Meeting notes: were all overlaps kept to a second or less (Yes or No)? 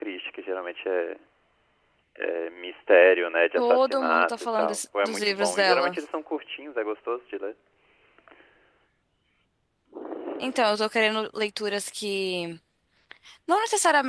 No